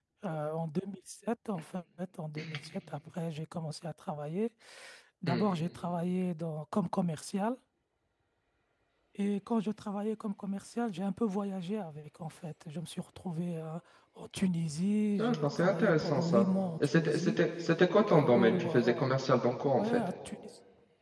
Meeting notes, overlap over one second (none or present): present